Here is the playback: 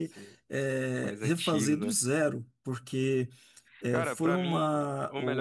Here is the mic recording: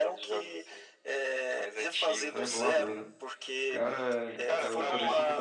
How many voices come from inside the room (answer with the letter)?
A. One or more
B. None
A